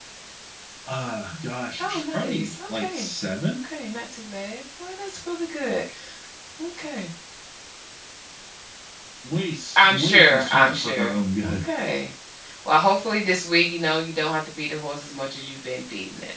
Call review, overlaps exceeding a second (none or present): present